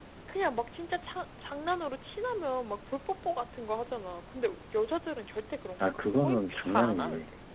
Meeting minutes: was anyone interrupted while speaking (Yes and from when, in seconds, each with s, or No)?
Yes, from 5.8 s